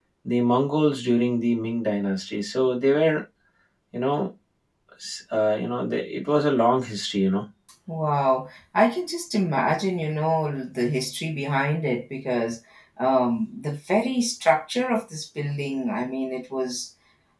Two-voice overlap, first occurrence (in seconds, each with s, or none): none